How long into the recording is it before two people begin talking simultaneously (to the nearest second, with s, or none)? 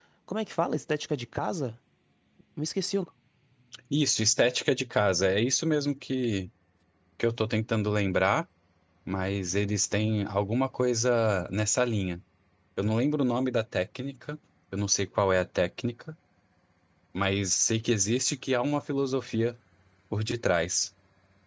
none